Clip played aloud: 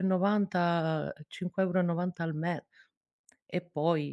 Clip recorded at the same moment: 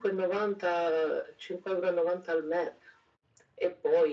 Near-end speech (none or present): none